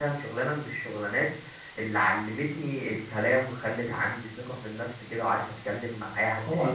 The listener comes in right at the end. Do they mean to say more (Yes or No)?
Yes